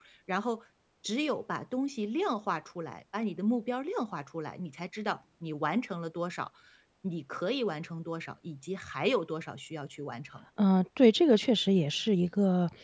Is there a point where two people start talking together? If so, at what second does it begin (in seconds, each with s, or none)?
none